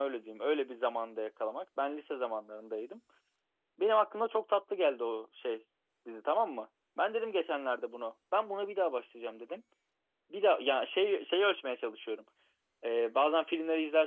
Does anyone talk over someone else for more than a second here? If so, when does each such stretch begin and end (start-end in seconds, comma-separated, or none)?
none